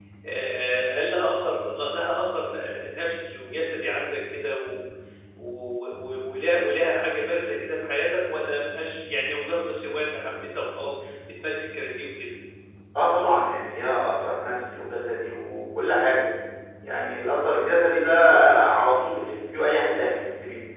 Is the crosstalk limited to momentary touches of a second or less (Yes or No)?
Yes